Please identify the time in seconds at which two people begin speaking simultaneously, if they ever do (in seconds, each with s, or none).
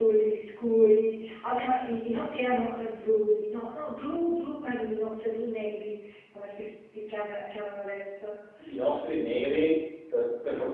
none